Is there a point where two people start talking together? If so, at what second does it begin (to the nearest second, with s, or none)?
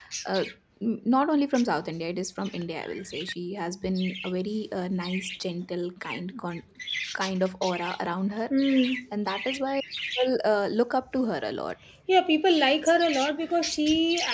none